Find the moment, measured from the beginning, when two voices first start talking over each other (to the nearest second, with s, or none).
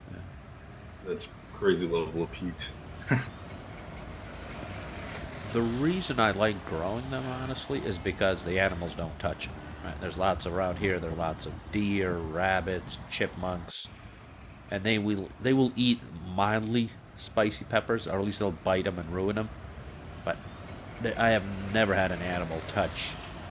none